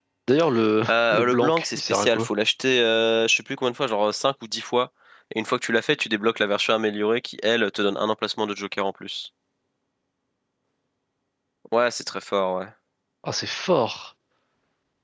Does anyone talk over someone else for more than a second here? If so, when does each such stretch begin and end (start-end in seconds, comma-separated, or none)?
0.9-2.3